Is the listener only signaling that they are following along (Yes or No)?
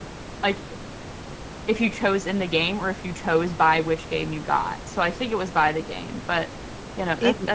No